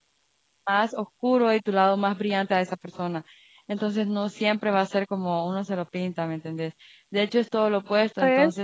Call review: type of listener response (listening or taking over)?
listening